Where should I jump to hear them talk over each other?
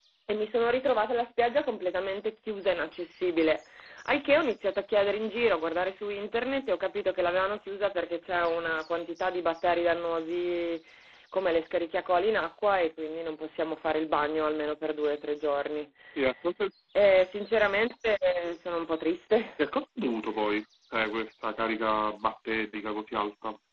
none

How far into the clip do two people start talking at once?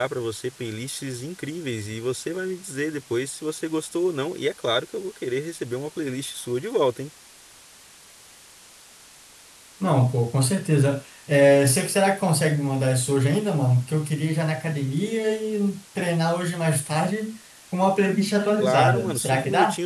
18.6 s

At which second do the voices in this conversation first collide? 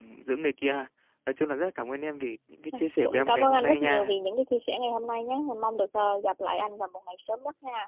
2.7 s

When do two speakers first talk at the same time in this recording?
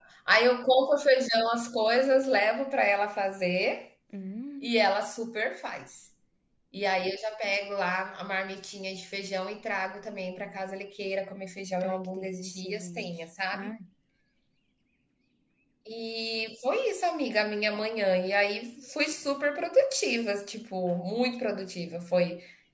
11.8 s

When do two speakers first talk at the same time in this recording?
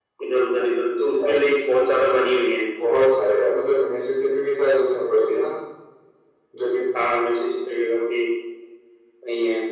none

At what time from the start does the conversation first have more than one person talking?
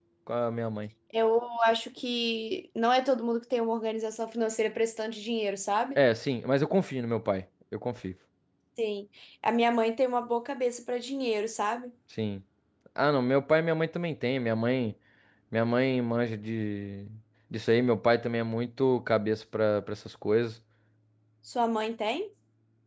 none

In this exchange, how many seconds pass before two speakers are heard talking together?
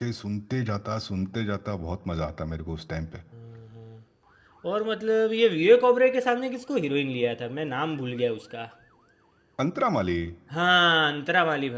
none

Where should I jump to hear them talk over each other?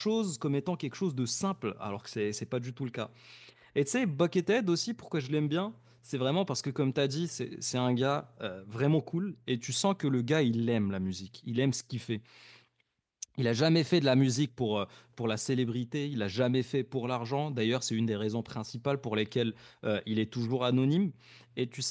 none

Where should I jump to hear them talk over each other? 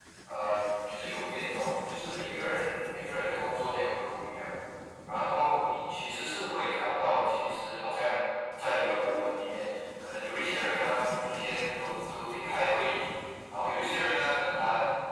none

